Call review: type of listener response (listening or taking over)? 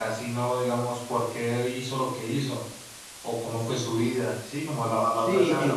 taking over